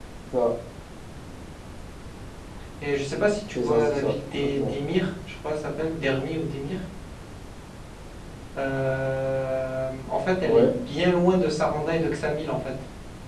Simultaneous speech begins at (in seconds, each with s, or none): 3.5 s